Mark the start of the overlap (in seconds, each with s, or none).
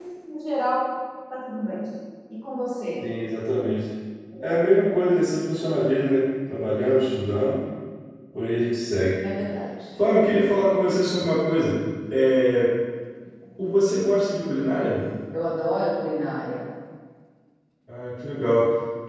none